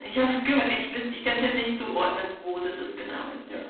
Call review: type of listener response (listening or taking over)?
taking over